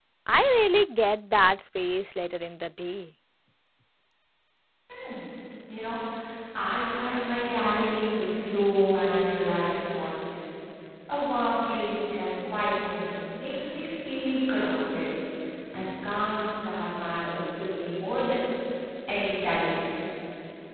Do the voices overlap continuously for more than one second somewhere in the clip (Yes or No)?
No